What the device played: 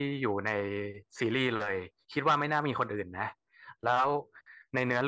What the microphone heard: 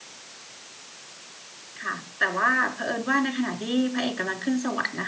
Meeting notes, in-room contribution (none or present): present